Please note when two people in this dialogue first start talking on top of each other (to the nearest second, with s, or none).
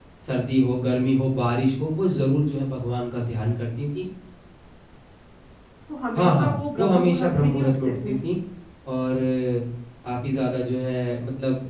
6 s